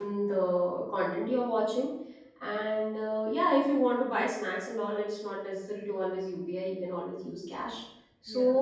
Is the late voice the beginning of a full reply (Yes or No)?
No